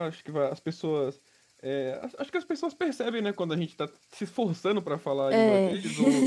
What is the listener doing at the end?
listening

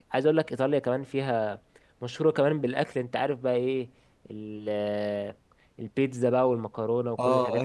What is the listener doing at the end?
taking over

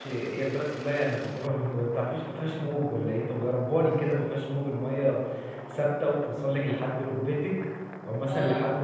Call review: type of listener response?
listening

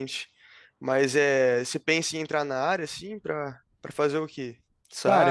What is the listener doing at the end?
taking over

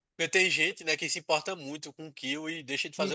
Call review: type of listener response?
taking over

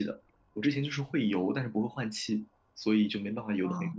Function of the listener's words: taking over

